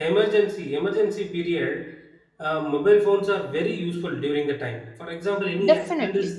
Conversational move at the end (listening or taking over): listening